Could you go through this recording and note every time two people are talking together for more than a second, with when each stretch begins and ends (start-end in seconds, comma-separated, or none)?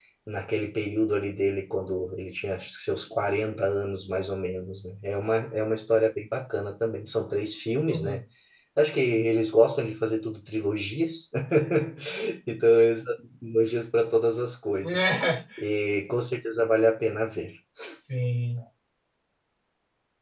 none